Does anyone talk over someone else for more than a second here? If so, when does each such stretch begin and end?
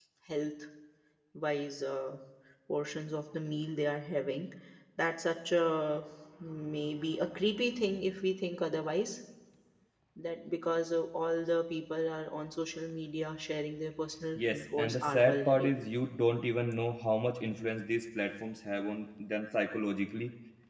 14.4-15.8

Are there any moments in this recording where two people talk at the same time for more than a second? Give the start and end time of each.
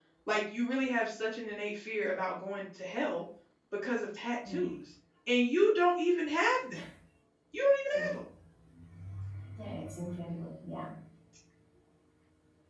none

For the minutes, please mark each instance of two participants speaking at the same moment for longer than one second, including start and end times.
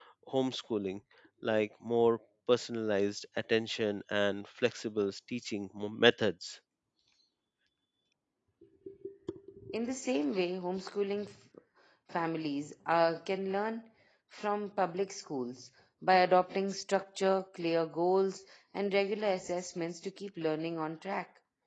none

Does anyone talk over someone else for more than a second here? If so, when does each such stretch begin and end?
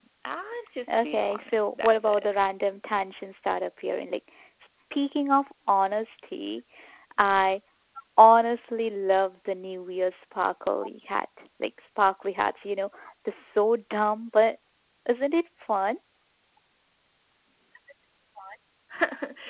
0.9-2.3

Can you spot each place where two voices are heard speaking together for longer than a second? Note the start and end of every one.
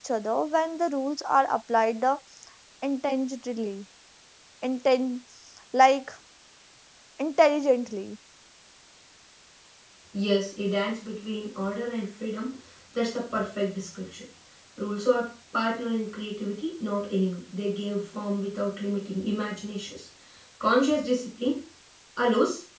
none

